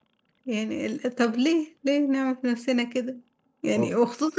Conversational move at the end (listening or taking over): listening